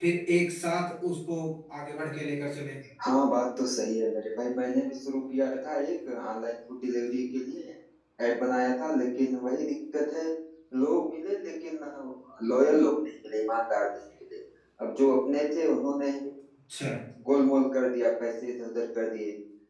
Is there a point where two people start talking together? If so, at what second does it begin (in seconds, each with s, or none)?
none